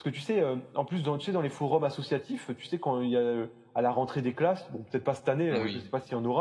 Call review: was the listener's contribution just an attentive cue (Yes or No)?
Yes